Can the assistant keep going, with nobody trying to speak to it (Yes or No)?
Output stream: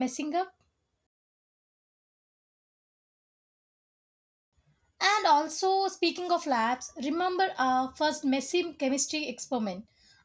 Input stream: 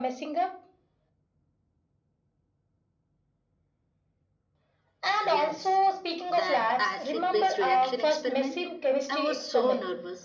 No